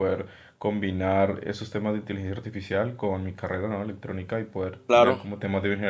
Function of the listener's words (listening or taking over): listening